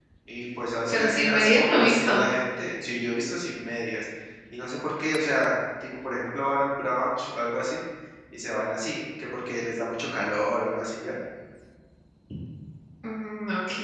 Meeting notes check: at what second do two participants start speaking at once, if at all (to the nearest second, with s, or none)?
1 s